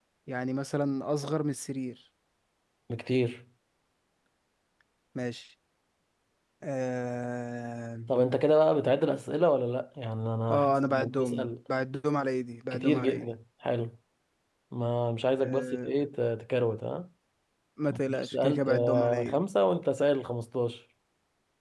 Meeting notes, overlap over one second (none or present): present